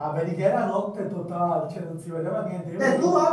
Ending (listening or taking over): taking over